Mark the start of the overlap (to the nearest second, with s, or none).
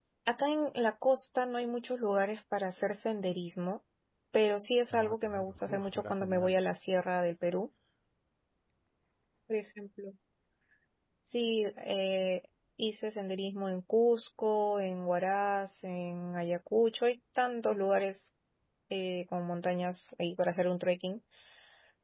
5 s